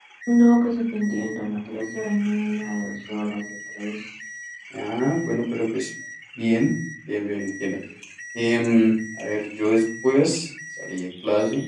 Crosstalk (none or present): none